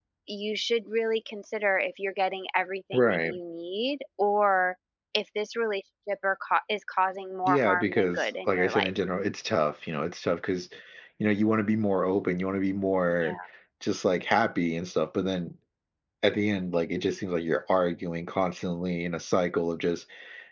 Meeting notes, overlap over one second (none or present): present